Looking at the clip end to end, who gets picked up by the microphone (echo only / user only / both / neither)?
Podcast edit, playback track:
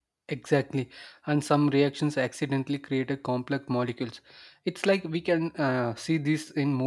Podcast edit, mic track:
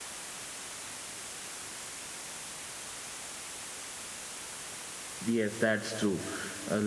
user only